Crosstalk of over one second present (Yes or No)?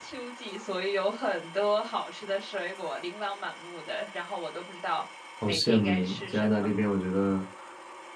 Yes